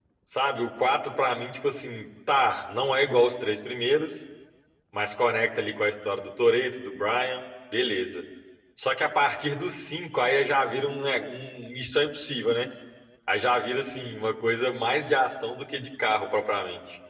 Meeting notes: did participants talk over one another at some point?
No

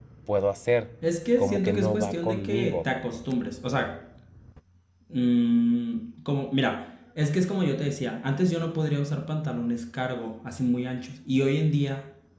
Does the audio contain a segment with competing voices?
Yes, from 1.4 s

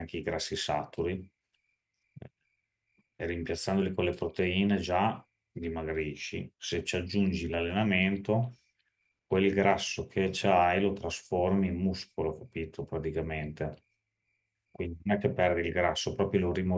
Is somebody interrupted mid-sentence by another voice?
No

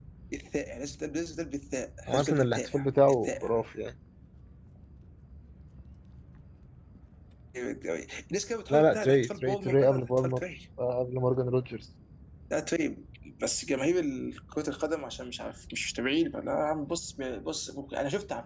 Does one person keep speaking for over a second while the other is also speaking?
Yes, from 2.1 s

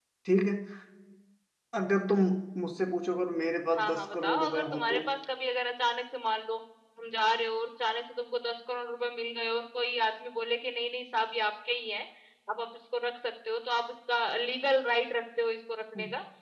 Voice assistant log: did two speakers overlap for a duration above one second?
Yes, from 3.8 s

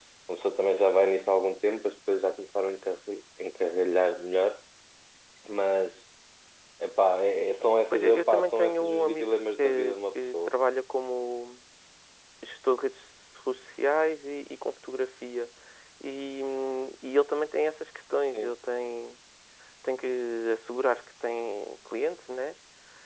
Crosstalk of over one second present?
Yes, from 7.9 s

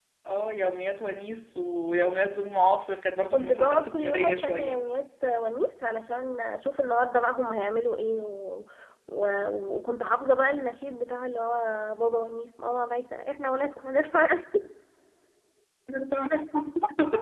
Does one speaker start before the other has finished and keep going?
Yes, from 3.3 s

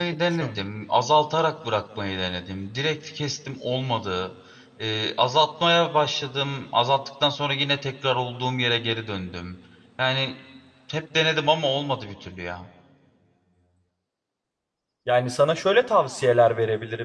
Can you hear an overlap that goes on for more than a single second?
No

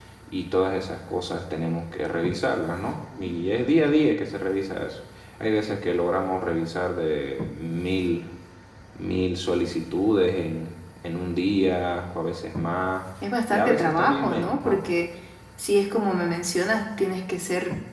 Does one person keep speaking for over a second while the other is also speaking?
Yes, from 13.5 s

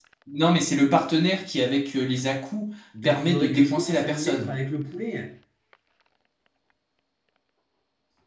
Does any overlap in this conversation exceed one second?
Yes, from 2.9 s

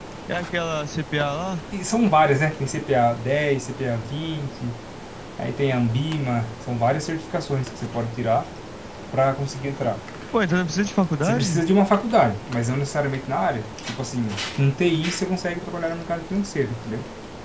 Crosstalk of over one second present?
No

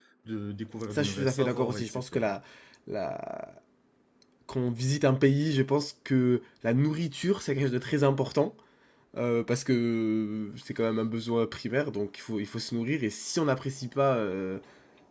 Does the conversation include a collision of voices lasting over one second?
Yes, from 0.9 s

